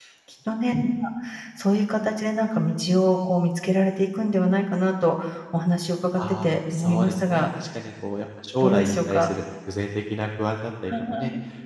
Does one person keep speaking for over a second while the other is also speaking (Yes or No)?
Yes